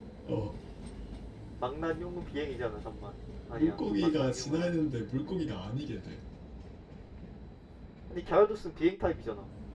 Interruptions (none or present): present